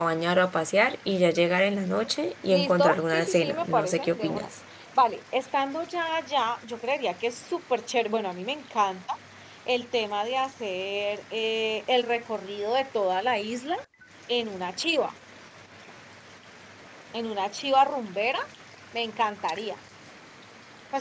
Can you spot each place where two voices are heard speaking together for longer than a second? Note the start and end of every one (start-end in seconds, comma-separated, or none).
2.5-4.5